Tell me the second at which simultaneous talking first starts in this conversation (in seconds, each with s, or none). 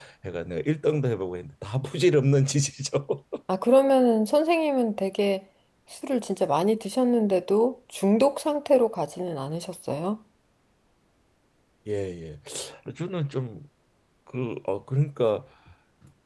none